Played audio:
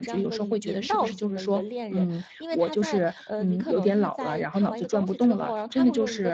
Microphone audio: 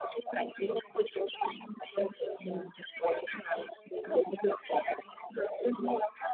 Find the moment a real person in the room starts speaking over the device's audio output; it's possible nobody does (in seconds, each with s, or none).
none